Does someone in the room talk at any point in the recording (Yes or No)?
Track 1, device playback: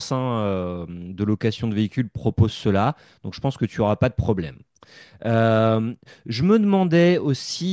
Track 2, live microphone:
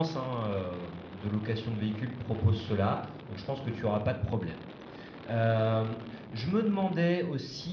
No